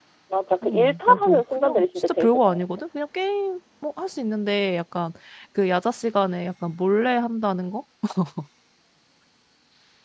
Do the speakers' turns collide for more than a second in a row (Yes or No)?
Yes